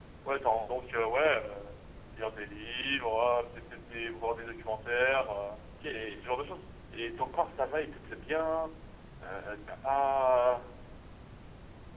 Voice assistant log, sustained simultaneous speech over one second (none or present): none